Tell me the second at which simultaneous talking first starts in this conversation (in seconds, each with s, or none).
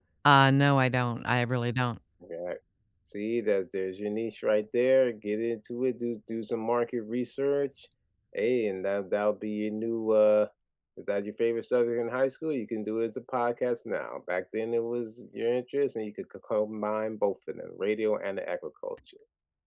none